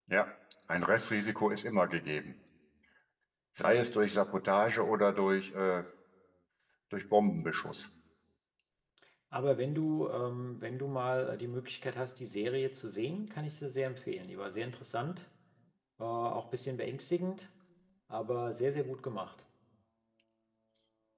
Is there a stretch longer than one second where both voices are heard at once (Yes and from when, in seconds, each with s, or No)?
No